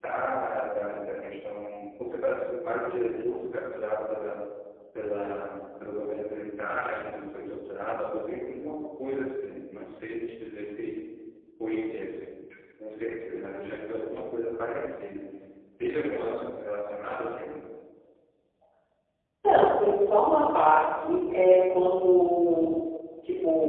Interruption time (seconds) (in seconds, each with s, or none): none